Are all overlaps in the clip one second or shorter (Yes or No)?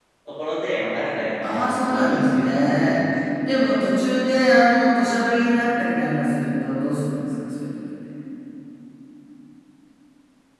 No